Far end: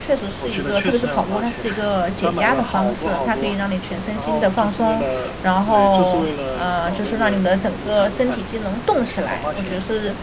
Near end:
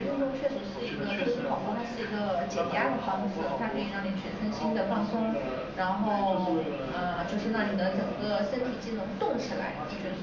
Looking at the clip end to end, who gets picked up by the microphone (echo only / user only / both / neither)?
both